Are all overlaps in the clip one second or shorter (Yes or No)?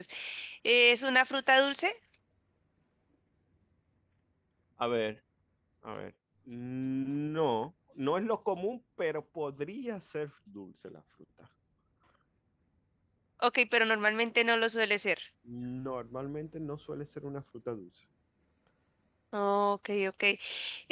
Yes